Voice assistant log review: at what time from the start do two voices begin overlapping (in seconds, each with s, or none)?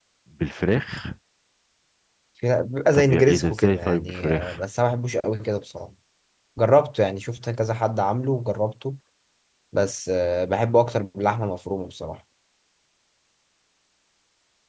2.9 s